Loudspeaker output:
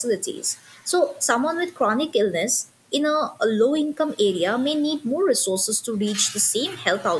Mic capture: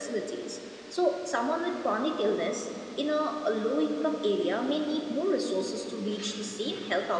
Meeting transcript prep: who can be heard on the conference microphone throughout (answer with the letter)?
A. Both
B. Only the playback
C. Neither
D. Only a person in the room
B